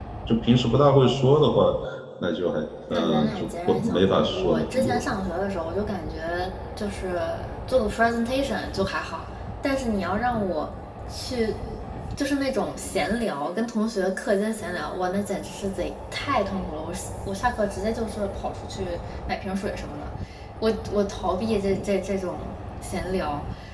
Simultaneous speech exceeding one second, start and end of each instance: 2.9-5.0

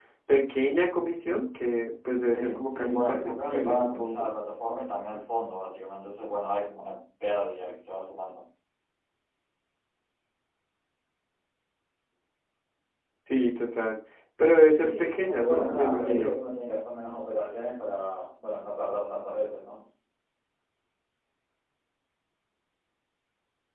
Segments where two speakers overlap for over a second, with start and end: 2.3-4.3, 14.8-16.4

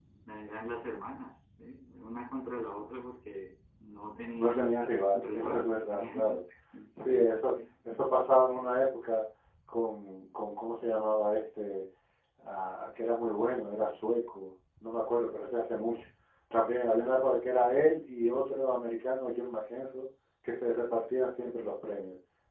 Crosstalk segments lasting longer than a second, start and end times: 4.4-6.4

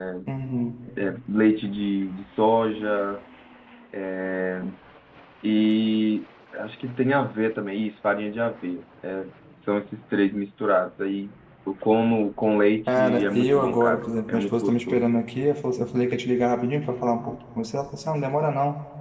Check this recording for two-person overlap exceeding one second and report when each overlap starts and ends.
12.9-15.1

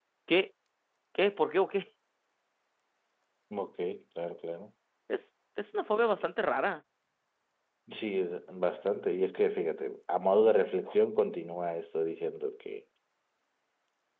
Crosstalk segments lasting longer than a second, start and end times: none

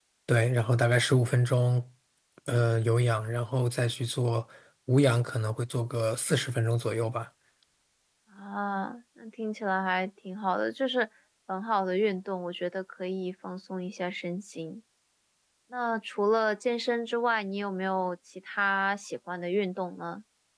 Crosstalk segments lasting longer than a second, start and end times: none

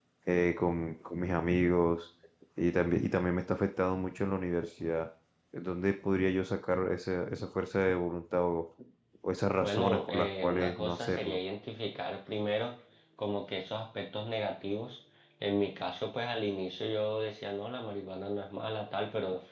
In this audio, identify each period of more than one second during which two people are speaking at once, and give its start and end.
9.6-11.4

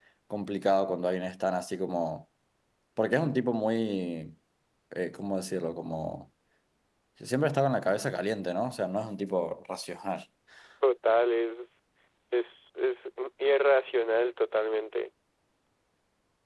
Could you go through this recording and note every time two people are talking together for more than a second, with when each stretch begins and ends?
none

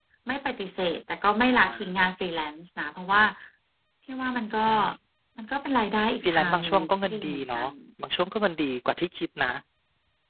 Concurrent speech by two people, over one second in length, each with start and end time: 6.2-7.6

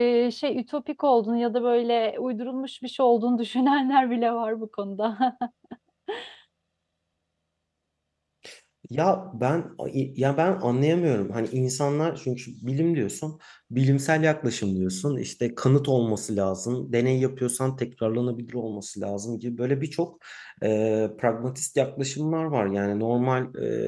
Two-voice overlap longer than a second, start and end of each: none

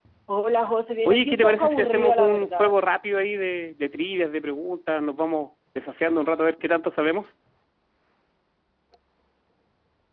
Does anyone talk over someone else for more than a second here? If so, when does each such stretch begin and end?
1.1-2.8

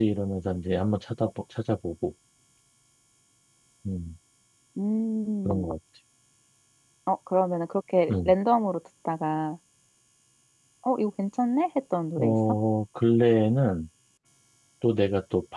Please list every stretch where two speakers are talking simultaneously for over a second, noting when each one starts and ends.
none

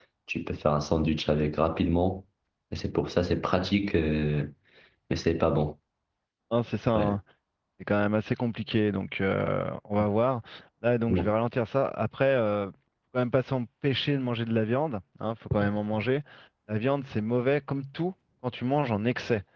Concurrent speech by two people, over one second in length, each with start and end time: none

